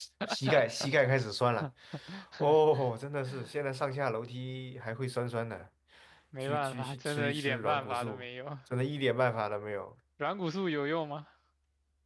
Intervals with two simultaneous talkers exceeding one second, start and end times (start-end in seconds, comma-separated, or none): 6.4-8.2